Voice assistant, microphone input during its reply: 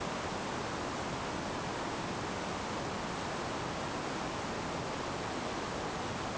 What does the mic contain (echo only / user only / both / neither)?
neither